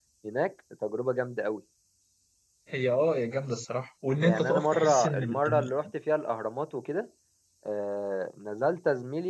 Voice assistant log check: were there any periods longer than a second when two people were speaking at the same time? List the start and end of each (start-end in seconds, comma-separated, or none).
4.2-5.7